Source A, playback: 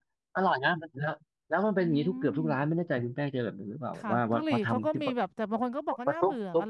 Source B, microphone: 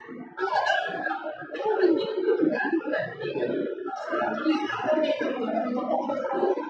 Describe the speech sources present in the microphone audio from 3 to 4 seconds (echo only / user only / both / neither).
echo only